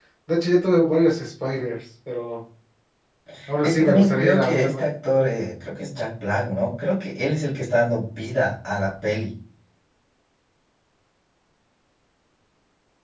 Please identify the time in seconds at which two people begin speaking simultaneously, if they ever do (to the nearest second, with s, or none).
4 s